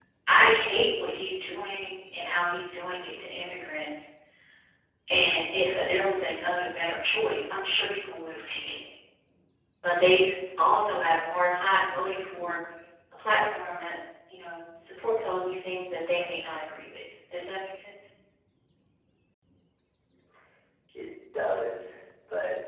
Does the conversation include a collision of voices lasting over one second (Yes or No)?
No